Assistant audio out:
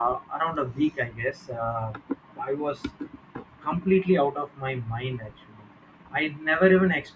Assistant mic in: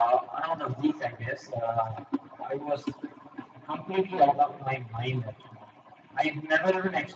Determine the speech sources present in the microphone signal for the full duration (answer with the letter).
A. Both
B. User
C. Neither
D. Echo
A